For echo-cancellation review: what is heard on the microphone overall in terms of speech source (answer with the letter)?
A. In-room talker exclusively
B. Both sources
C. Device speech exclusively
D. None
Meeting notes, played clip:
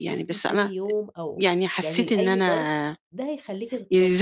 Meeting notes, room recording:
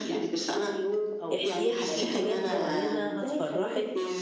B